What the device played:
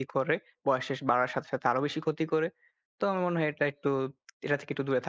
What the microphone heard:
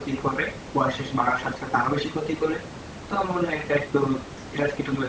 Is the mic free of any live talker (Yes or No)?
Yes